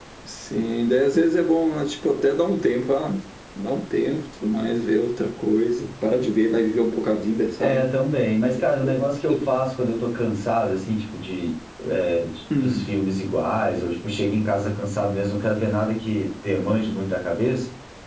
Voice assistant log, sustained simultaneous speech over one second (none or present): none